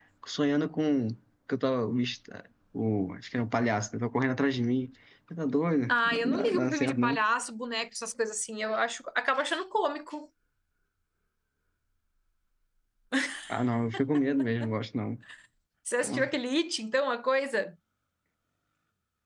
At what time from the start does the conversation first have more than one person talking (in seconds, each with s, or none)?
5.9 s